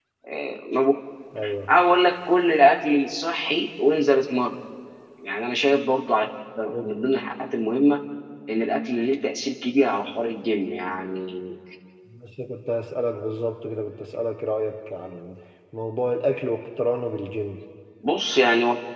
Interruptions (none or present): none